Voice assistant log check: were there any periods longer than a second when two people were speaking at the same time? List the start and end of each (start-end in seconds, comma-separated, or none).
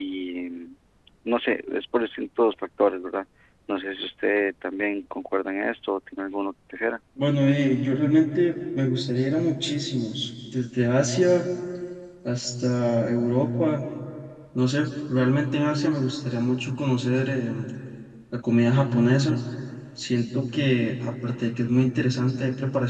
none